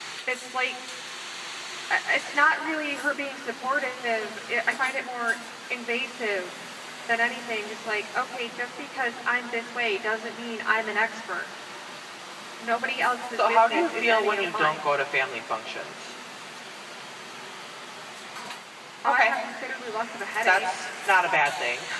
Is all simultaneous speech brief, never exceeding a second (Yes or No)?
No